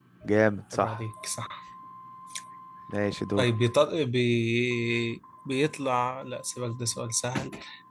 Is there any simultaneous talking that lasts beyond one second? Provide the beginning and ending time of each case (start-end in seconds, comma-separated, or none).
none